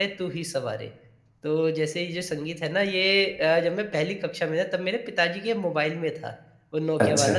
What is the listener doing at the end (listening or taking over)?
listening